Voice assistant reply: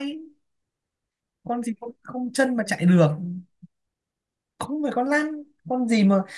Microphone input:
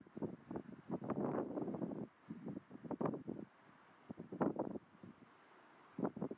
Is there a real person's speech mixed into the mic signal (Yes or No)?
No